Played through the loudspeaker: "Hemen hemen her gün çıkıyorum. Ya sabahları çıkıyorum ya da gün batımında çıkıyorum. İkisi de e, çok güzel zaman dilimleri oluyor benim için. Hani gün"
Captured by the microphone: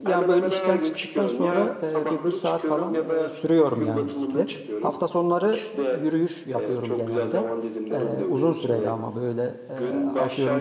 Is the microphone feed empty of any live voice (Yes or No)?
No